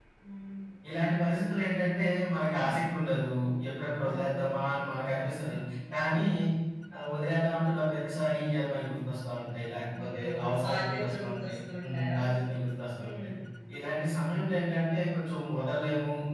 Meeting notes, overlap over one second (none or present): present